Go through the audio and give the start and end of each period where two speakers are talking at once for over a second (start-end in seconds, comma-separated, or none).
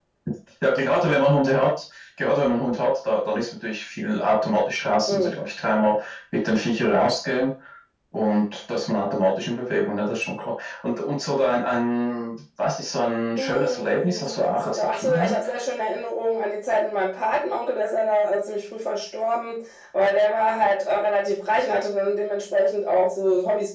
13.4-15.3